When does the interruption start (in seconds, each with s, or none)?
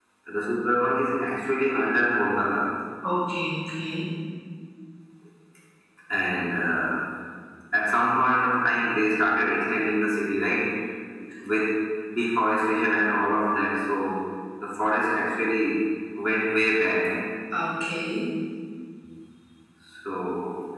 none